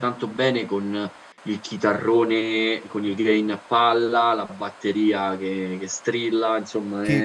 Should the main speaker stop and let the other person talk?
Yes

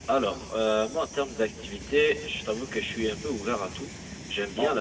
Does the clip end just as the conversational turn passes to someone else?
No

